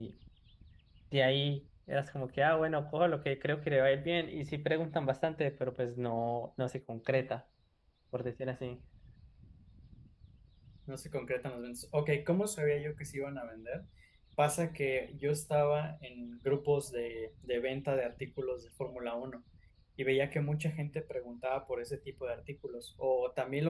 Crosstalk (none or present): none